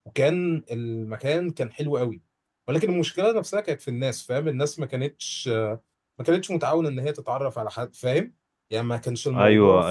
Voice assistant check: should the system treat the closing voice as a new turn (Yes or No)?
Yes